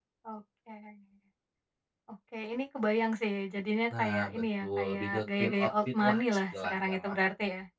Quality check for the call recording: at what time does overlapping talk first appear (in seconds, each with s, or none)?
3.9 s